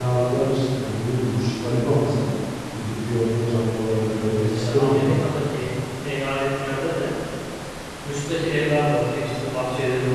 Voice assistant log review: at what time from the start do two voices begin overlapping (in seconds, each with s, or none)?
3.9 s